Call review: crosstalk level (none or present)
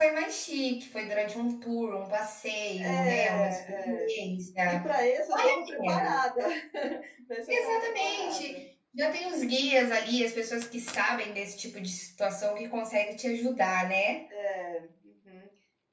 present